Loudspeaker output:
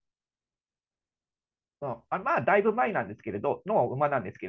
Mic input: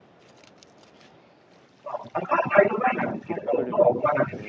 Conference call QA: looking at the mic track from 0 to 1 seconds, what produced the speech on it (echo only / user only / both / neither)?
neither